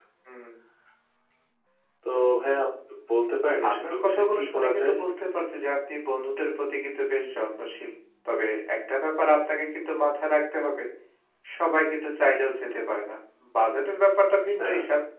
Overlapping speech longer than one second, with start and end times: 3.7-4.9

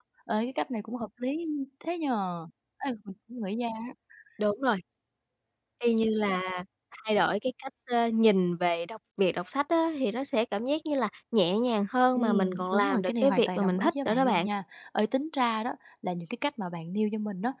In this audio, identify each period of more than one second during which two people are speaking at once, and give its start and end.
12.2-14.5

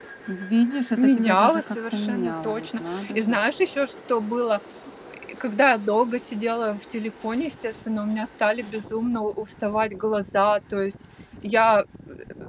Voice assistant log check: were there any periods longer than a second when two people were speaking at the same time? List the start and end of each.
1.0-3.4

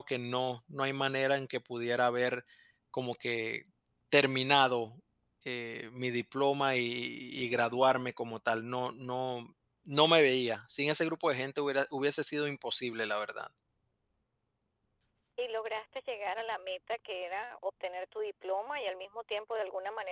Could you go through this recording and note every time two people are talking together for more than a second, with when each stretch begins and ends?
none

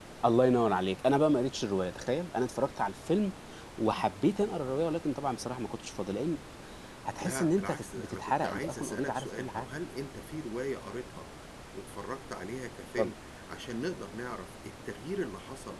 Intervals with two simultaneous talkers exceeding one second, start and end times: 7.2-9.7

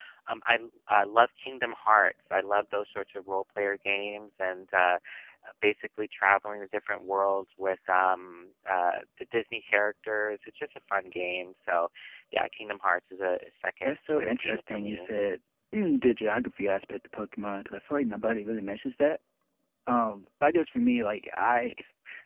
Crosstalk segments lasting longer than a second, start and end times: 13.8-15.1

